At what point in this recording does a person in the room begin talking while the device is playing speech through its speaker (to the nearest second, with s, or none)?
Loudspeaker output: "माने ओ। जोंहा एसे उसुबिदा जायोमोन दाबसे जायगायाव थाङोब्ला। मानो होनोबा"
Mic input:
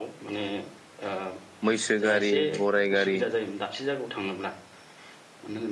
2 s